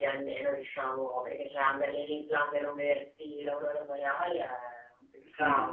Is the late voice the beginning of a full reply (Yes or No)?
Yes